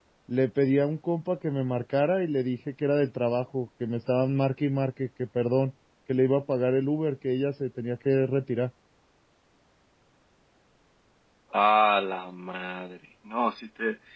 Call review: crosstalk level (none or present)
none